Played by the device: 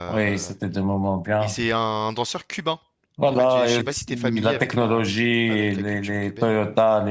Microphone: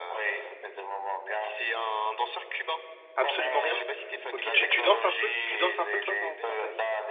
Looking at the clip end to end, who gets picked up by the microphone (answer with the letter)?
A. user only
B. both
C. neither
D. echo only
B